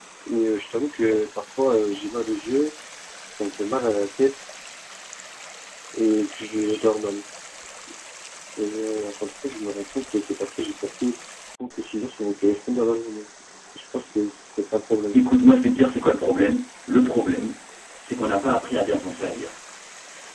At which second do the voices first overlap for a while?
none

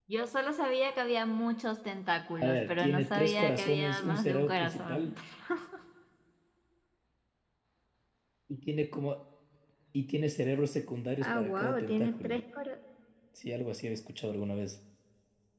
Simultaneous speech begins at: 2 s

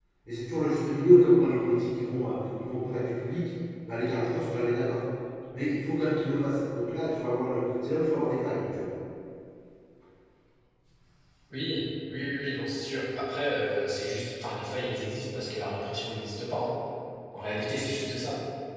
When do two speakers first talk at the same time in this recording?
none

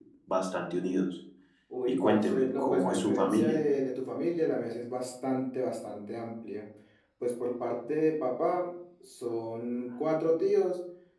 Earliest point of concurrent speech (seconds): 2 s

